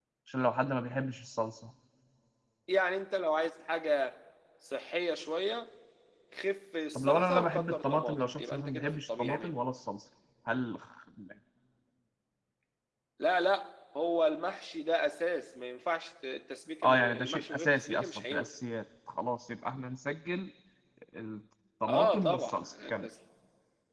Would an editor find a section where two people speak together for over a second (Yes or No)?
Yes